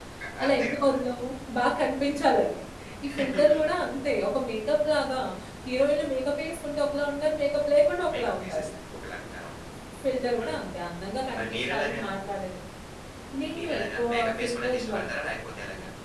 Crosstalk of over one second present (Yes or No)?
Yes